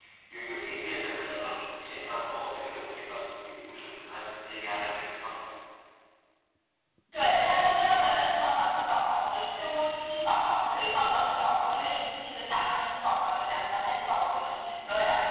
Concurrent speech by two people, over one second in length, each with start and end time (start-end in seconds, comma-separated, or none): none